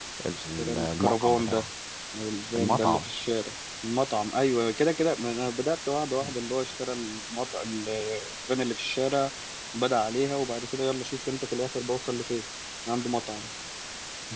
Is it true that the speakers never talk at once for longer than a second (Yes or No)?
No